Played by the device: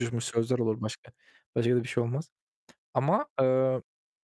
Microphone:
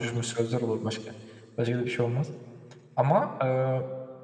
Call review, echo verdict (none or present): present